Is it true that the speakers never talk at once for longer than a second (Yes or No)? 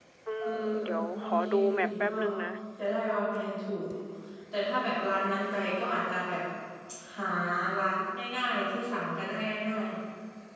No